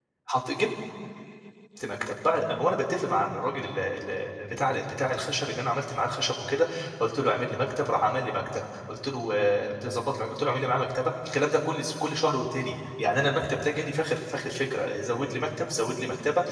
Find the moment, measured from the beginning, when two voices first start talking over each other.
none

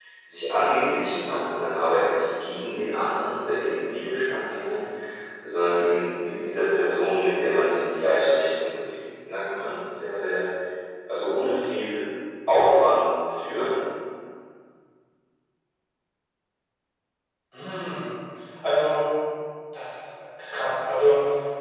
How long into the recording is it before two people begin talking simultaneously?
none

